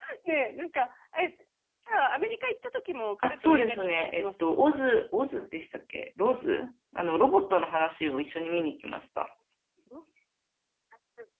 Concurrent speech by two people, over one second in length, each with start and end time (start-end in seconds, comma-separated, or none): 3.2-4.5